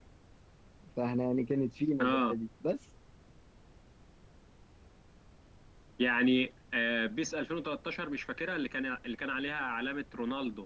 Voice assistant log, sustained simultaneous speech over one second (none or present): none